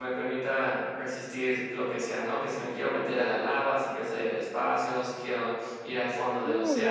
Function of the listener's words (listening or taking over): taking over